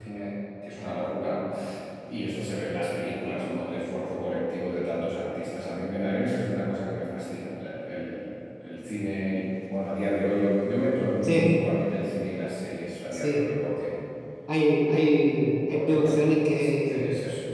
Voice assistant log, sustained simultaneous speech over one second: present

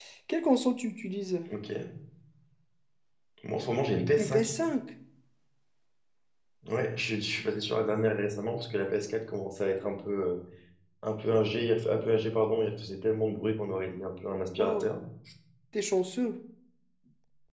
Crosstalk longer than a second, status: none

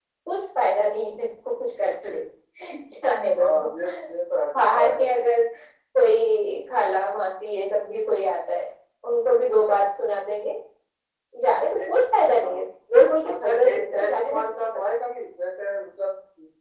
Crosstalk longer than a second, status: present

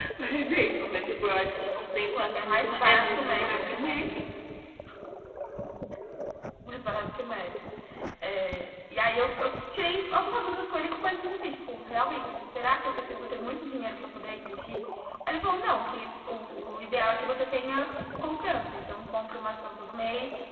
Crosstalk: present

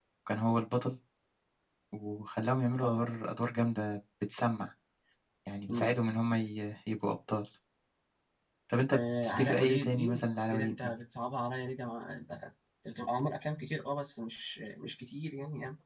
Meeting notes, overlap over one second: present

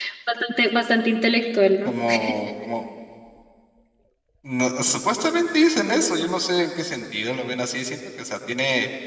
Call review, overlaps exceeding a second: none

